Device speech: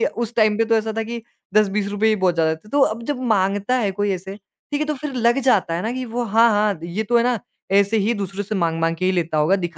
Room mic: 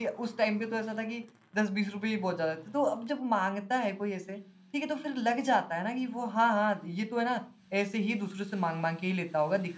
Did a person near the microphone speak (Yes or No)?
No